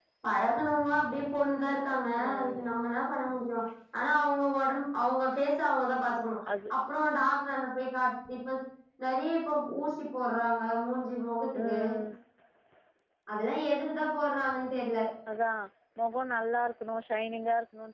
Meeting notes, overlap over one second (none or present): none